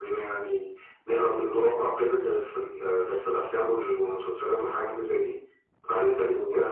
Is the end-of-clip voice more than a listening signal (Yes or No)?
No